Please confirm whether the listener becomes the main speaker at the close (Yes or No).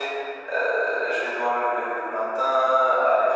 No